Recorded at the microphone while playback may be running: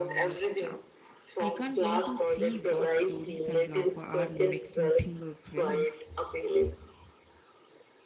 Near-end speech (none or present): present